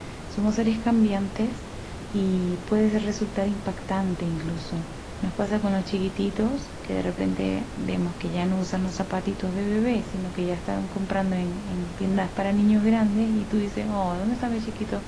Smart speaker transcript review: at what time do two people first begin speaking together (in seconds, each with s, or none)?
none